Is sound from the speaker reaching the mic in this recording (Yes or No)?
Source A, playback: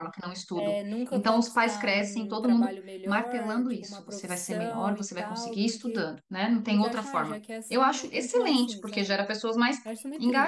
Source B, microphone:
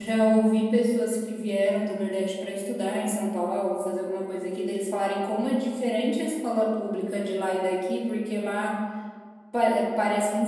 No